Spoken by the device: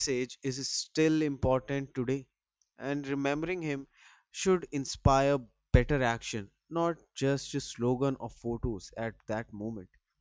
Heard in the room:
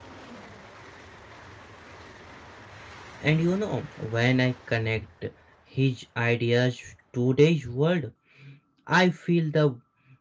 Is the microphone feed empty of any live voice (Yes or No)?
No